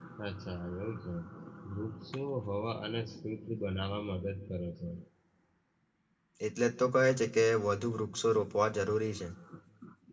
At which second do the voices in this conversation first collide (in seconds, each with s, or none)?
none